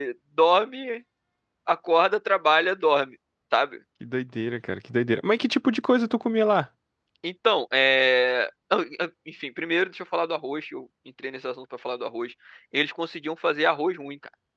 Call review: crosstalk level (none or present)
none